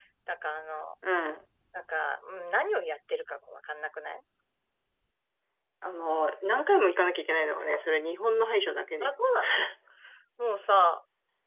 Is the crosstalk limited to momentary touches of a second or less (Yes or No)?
Yes